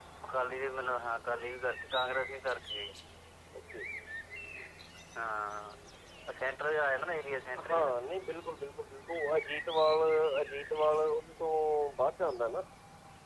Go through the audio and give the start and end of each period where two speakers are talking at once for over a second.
none

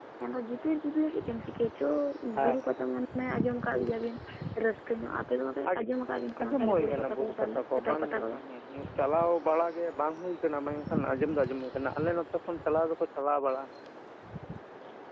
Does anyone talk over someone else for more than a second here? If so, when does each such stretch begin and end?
6.4-8.3

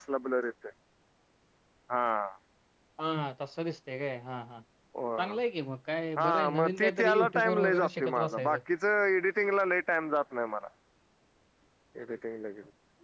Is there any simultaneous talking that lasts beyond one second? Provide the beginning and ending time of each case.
6.2-8.6

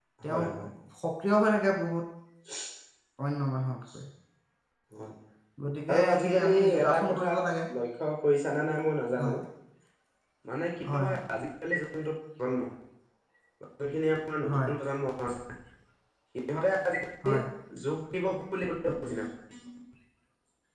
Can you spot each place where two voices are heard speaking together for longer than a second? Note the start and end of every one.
5.9-7.3

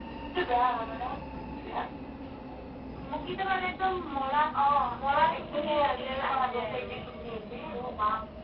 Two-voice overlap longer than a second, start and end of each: 5.0-6.9

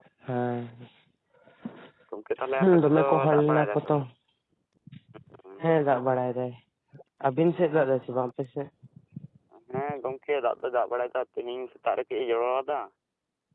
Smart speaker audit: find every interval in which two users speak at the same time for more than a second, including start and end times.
2.6-4.0

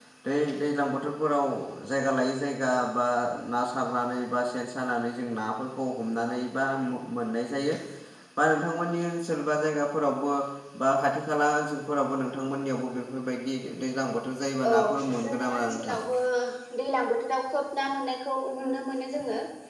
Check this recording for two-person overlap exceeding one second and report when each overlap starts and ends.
14.7-15.9

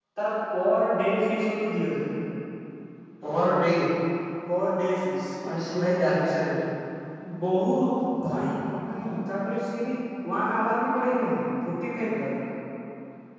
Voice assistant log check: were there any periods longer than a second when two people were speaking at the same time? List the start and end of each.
none

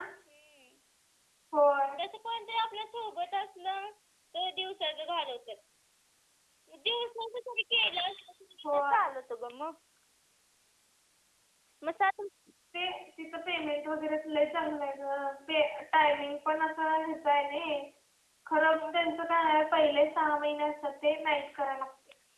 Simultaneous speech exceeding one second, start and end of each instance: none

